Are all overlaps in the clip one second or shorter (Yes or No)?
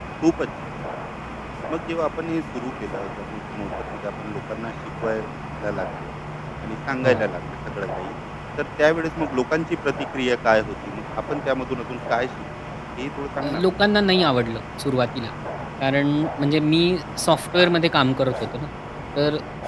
Yes